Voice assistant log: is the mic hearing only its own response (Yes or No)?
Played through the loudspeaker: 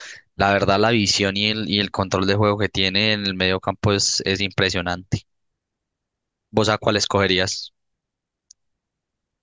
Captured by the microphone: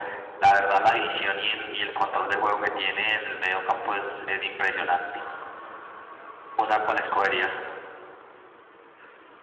Yes